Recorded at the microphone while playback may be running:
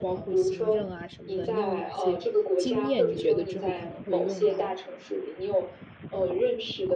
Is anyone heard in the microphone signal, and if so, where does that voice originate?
both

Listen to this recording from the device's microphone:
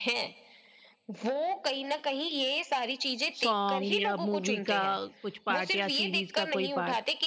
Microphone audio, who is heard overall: both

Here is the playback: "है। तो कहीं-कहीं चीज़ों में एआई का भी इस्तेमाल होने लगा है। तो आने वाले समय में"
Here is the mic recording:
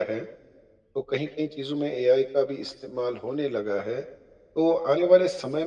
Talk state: echo only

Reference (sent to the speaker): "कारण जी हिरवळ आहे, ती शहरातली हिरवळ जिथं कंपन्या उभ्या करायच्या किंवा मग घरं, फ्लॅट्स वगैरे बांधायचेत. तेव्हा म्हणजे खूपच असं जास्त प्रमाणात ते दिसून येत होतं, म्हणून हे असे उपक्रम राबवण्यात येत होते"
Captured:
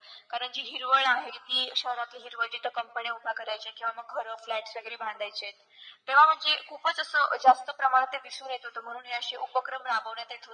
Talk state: echo only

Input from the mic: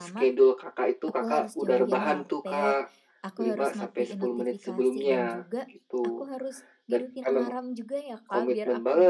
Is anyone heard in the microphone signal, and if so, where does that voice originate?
both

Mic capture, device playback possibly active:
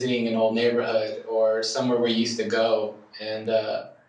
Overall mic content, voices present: echo only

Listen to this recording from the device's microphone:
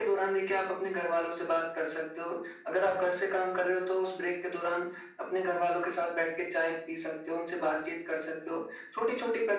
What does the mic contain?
echo only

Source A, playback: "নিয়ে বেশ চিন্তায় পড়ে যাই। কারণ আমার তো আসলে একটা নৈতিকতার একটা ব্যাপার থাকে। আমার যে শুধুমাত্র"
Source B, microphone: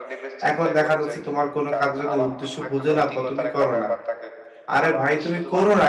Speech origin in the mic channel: both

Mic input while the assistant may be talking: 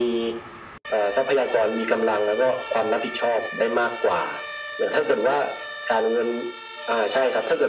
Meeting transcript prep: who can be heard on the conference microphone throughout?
echo only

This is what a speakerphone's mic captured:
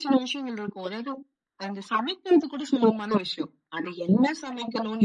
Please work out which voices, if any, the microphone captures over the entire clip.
echo only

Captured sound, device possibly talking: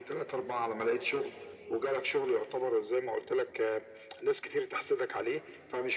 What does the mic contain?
echo only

